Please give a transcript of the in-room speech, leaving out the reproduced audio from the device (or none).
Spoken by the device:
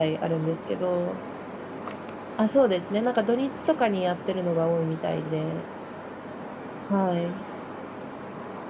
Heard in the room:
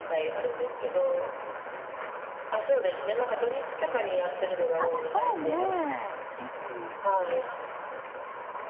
ああ、じゃあね、ぜひ、